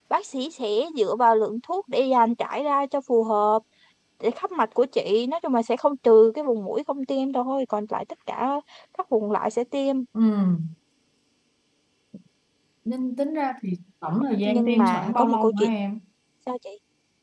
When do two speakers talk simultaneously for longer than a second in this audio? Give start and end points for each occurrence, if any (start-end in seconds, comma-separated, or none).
14.4-15.7